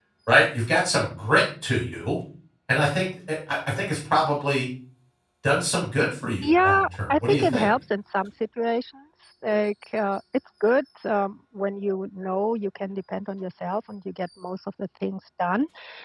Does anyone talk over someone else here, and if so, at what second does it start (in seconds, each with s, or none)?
6.4 s